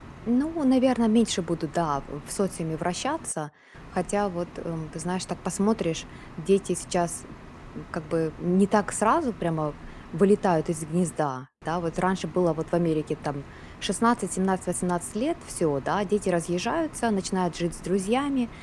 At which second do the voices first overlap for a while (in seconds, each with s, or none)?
none